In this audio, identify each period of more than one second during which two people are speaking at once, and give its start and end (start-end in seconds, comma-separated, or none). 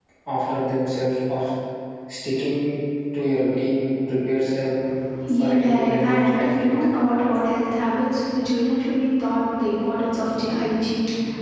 5.3-6.9